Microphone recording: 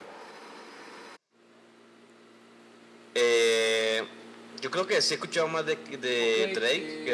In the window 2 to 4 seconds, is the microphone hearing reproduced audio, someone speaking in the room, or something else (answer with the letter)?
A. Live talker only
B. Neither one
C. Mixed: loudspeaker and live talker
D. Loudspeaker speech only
D